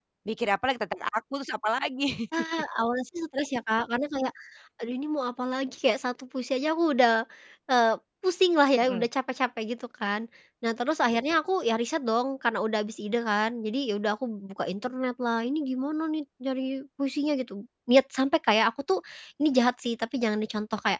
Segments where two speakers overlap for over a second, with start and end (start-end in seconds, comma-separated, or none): none